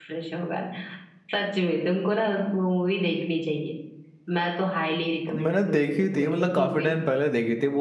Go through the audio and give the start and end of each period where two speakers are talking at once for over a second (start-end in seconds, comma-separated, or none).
5.3-6.9